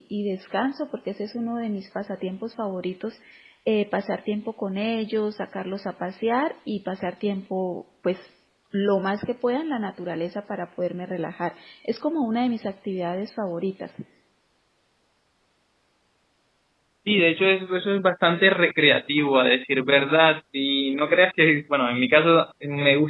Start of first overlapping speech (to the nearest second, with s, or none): none